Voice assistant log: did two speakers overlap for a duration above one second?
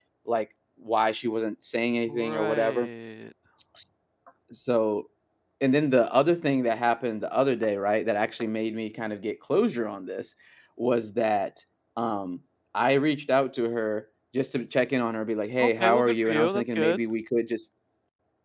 Yes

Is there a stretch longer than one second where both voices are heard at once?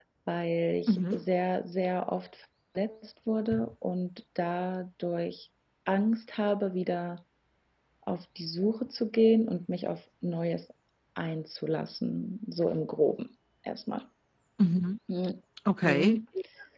No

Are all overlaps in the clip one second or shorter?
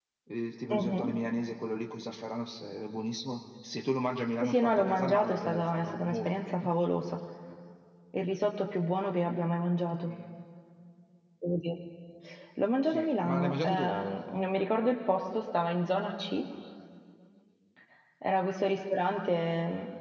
No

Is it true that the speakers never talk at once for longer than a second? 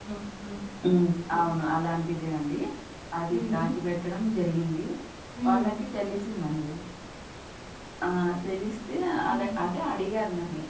Yes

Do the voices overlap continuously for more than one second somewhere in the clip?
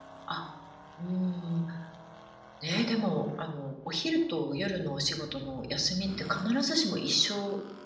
No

